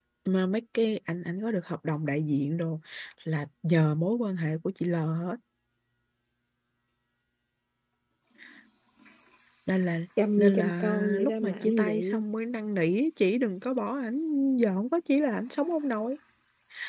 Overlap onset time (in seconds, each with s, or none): 10.4 s